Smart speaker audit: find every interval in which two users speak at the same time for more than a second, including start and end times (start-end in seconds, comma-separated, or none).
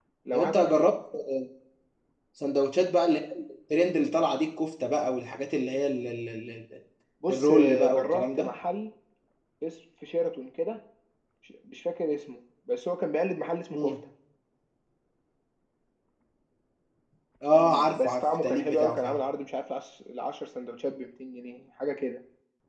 7.3-8.5, 17.6-19.2